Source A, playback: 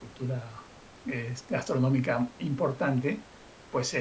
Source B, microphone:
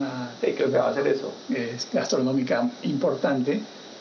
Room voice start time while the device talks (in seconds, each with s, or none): 0.4 s